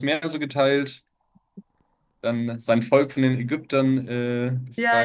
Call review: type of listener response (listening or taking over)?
taking over